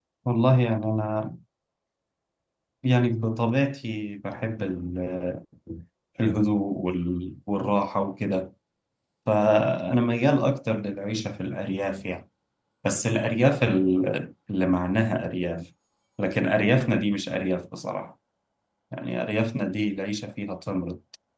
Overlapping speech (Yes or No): No